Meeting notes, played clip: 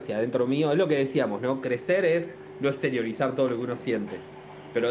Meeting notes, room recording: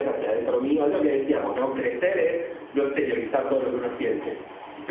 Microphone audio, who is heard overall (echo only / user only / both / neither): echo only